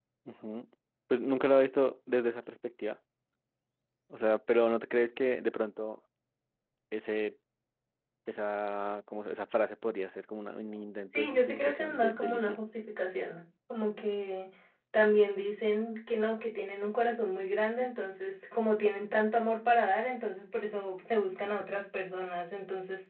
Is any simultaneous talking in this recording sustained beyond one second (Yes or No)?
Yes